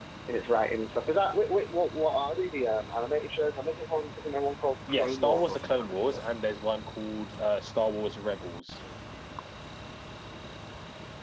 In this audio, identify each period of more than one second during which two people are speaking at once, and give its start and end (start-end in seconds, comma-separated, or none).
4.9-6.2